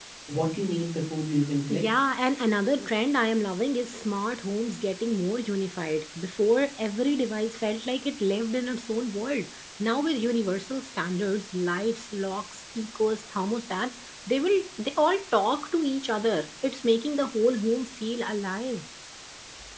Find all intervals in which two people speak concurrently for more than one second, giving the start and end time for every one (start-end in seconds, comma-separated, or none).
none